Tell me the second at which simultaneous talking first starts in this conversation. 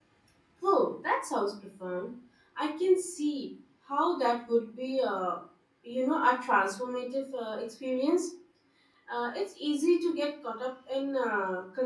none

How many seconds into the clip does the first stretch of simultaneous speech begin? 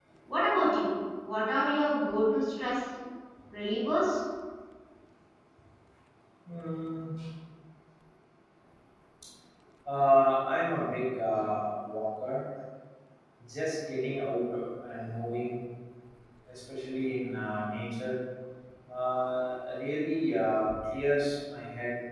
none

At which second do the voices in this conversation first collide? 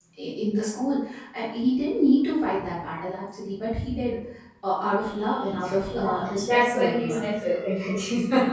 5.9 s

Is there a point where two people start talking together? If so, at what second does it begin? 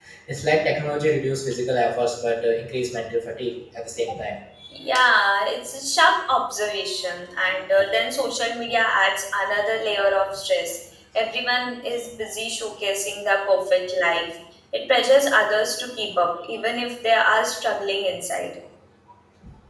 none

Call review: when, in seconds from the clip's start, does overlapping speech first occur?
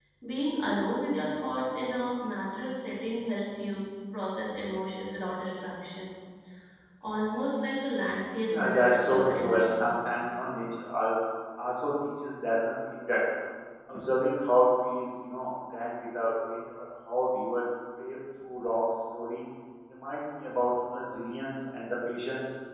8.5 s

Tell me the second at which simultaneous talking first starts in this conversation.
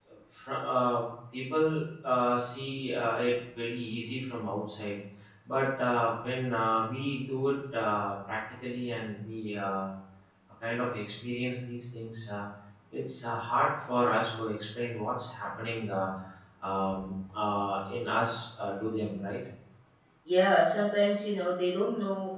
none

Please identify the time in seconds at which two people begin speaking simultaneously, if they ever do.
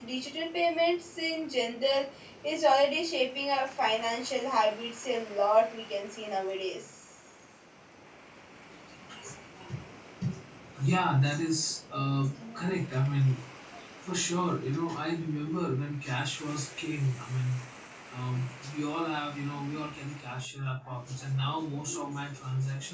none

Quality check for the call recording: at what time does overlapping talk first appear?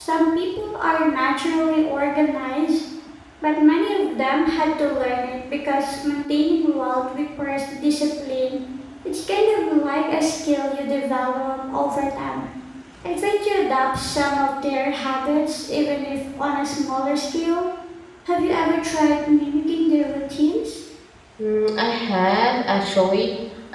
none

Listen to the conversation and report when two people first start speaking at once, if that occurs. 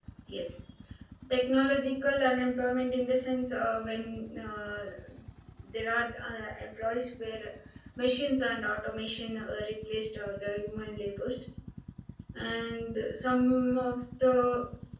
none

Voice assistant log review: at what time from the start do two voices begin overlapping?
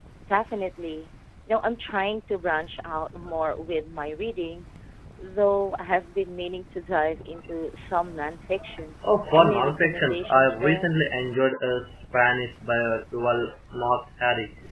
9.3 s

